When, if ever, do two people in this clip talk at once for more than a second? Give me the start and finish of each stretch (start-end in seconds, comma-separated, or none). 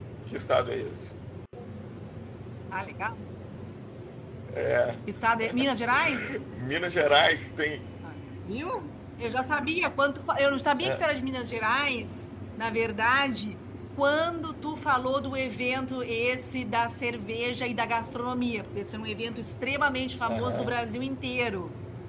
none